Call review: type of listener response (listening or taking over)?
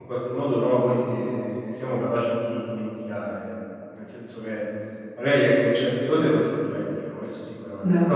listening